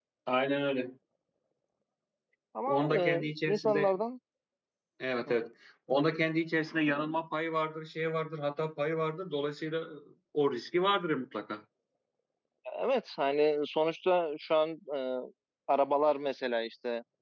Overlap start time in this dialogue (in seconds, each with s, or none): 2.7 s